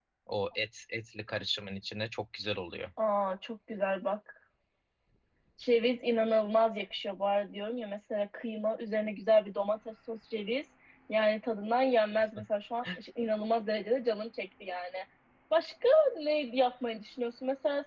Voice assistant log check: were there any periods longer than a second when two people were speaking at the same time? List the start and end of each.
none

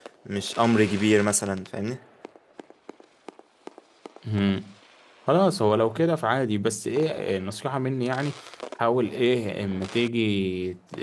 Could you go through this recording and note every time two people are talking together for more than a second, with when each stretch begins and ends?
none

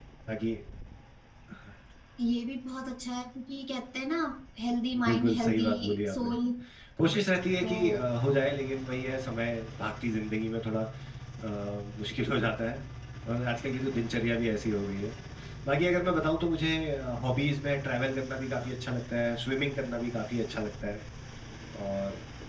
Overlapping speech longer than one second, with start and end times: 5.0-6.3

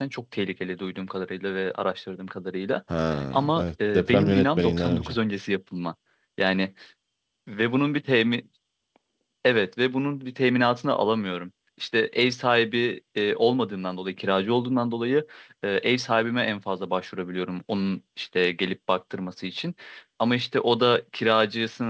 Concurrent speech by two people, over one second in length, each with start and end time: 3.3-5.2

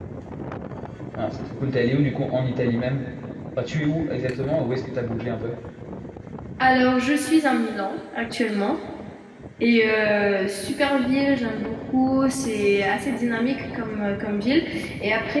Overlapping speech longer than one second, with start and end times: none

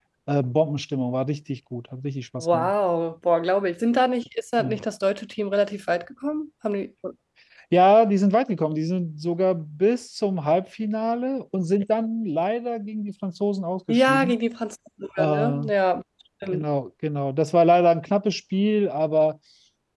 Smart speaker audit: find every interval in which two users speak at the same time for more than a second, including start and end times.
none

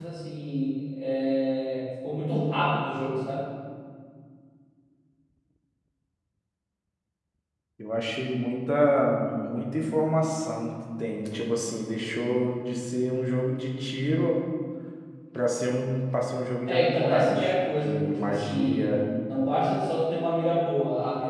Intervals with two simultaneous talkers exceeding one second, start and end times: 16.7-18.9

